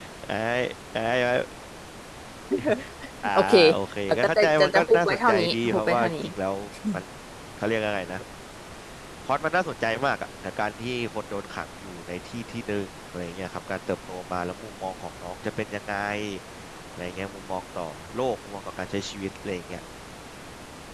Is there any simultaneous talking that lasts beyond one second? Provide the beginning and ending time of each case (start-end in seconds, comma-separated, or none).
4.1-6.1